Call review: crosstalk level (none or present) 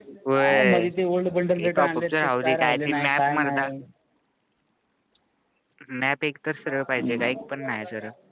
present